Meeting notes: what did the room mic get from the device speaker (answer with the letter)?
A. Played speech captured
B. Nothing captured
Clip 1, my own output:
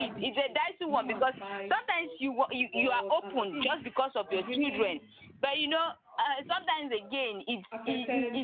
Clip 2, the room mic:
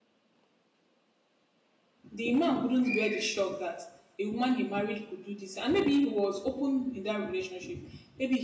B